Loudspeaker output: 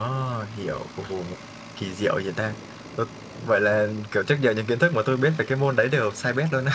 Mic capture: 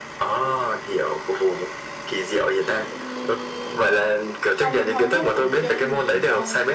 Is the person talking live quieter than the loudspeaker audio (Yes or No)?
Yes